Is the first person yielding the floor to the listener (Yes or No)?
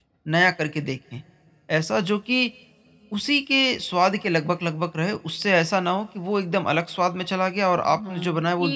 Yes